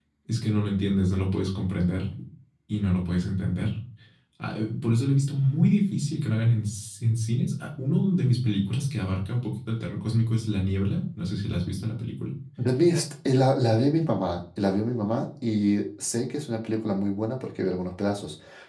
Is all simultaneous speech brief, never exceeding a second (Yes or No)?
Yes